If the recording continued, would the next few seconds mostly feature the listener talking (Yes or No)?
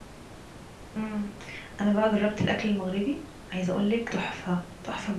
Yes